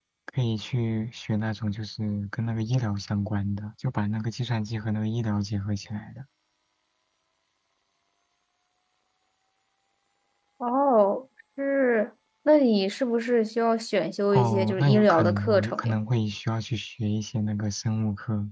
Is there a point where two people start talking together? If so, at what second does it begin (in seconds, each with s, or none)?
14.3 s